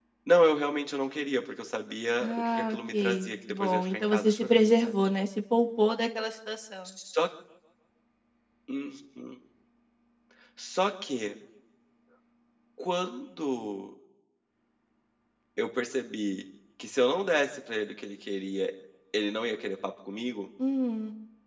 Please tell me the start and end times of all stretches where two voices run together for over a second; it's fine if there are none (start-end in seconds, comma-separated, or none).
2.2-4.9